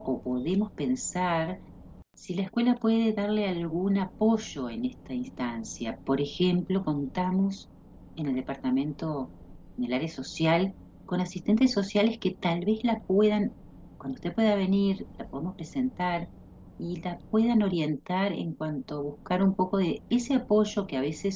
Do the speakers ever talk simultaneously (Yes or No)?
No